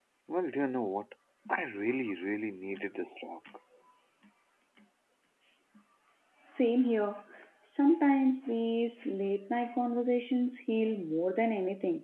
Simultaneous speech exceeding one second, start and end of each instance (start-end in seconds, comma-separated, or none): none